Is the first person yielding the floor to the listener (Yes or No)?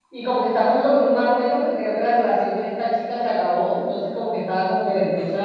No